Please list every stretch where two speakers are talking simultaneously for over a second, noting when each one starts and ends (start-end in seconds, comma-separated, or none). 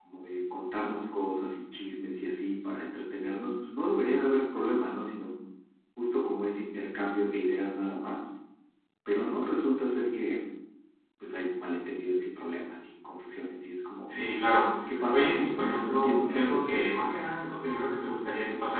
15.1-16.6